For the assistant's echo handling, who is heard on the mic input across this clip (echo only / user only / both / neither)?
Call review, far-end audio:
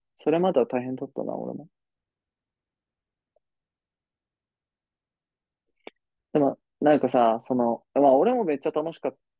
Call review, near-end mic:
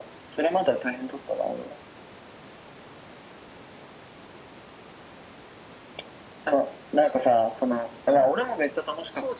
both